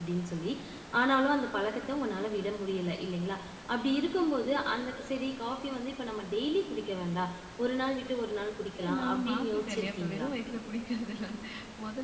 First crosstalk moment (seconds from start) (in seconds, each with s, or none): 8.8 s